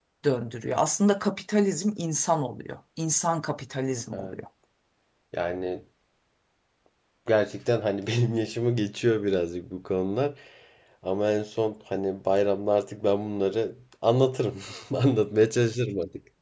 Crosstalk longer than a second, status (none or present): none